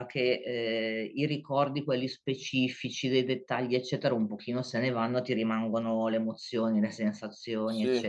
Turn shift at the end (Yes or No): No